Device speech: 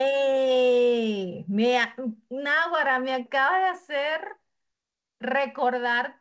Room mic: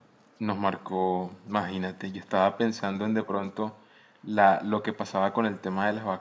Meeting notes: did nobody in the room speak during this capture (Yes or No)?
No